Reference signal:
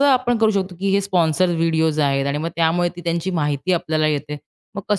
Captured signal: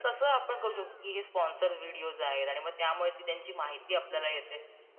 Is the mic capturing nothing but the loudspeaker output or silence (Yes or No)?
Yes